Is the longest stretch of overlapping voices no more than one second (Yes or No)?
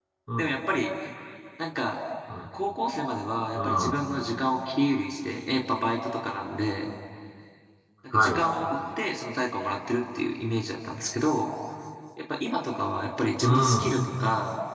Yes